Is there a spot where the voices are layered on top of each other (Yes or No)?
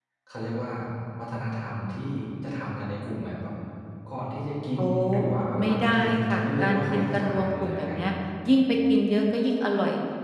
Yes